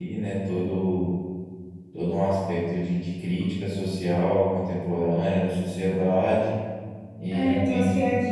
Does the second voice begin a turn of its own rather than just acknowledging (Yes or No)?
Yes